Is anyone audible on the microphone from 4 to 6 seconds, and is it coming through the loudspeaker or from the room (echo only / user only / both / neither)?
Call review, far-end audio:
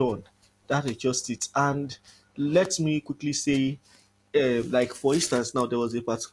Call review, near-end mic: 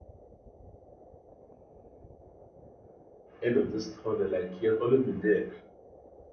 user only